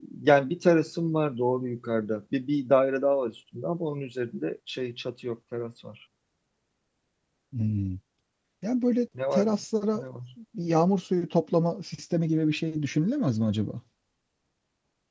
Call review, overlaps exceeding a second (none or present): none